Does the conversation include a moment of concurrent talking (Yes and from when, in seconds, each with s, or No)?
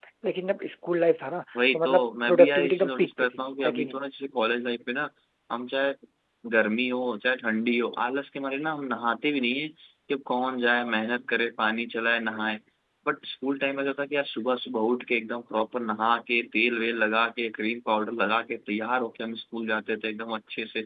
Yes, from 1.6 s